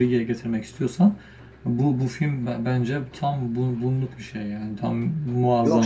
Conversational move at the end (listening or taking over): taking over